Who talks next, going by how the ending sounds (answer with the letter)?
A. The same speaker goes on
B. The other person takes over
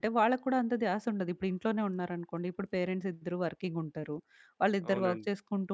A